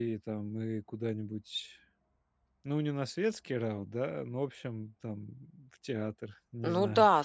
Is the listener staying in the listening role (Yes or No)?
No